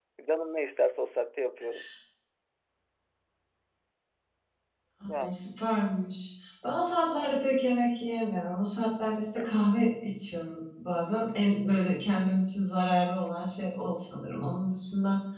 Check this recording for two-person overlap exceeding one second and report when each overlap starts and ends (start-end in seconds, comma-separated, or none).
none